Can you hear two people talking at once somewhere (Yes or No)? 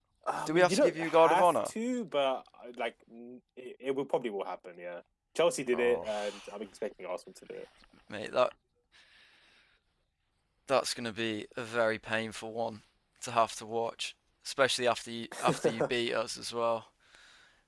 Yes